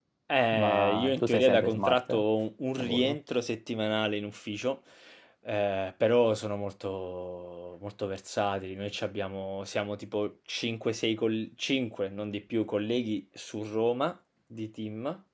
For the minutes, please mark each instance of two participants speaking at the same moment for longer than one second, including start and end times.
0.5-2.2

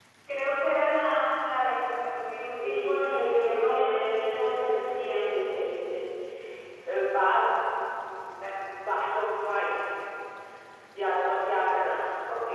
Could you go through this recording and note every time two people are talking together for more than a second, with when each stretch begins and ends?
2.6-4.6

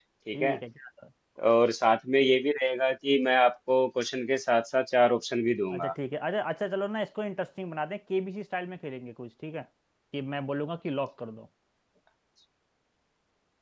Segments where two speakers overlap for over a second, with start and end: none

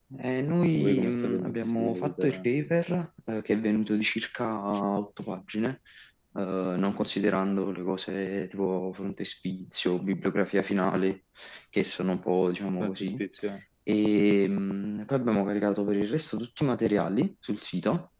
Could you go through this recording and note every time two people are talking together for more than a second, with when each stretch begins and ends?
0.8-2.5

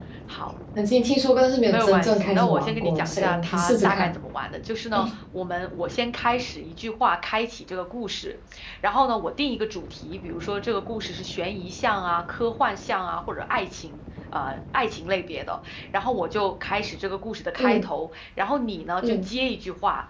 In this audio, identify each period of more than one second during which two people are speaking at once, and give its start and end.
1.7-4.1

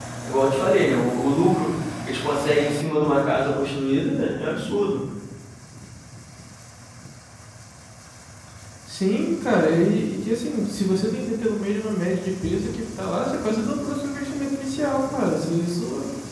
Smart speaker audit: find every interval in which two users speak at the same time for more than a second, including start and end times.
none

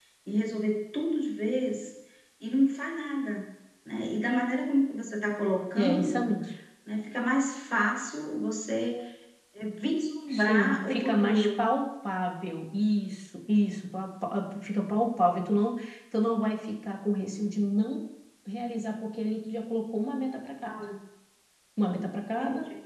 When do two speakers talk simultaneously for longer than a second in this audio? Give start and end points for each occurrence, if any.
10.3-11.6

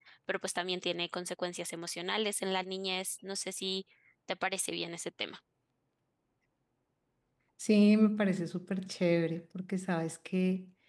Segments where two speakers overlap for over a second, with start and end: none

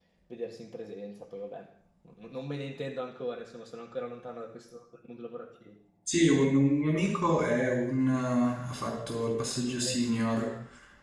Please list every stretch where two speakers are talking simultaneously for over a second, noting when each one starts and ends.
none

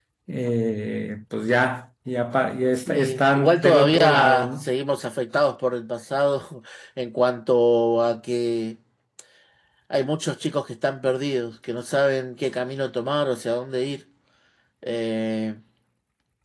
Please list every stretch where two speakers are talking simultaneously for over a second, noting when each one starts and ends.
2.9-4.7

